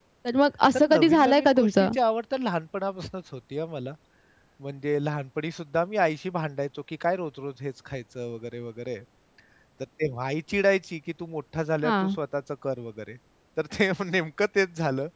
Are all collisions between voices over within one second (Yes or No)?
No